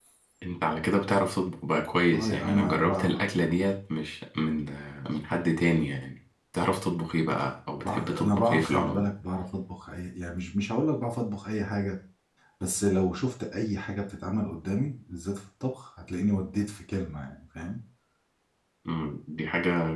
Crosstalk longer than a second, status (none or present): present